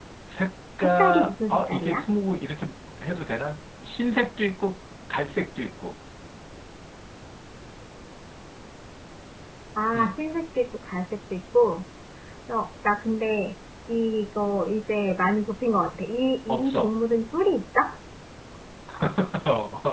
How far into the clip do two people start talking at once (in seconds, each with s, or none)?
0.8 s